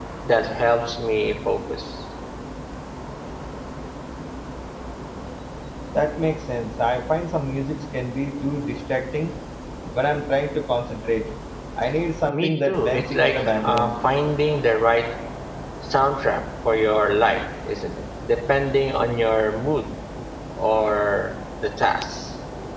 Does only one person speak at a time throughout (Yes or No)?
No